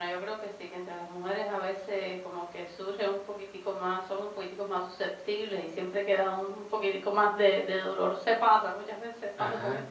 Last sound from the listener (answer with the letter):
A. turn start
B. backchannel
B